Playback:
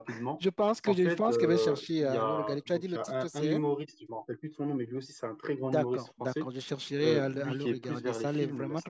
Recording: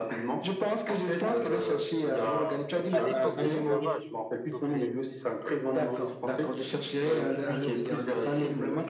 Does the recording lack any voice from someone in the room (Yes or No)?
No